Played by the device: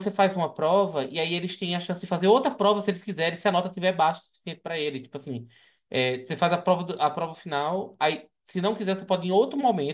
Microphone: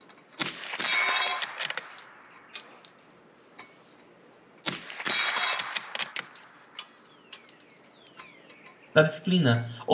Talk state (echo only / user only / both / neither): user only